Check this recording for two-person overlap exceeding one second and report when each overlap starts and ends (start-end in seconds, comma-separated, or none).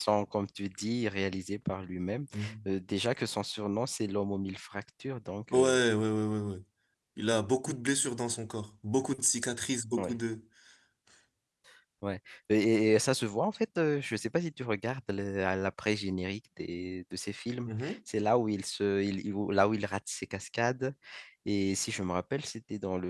none